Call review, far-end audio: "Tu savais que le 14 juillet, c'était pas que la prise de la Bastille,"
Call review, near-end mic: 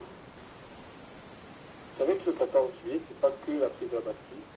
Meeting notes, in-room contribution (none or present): none